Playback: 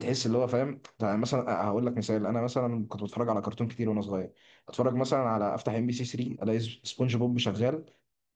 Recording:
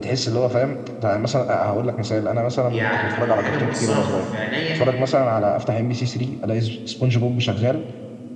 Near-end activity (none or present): present